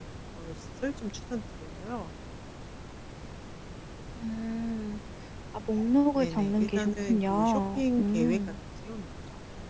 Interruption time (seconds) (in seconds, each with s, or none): 6.2 s